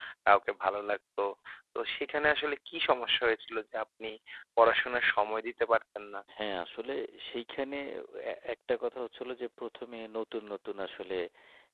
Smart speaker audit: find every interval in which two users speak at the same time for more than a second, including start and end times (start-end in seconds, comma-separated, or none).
none